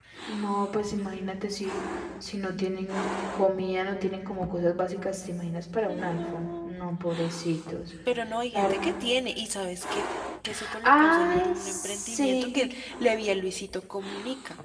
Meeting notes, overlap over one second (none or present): present